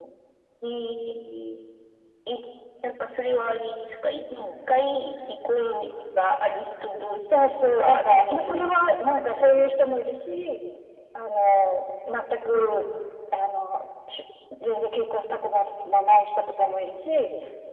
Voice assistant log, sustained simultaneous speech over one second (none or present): present